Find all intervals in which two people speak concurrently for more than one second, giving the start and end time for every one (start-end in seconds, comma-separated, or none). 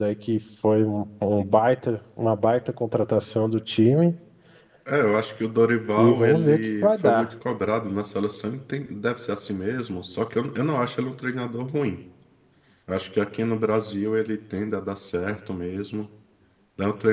6.0-7.3